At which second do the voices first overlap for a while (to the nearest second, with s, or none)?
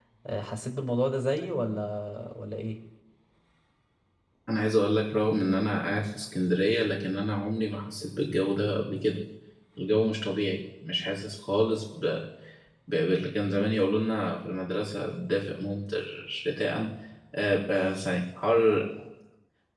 none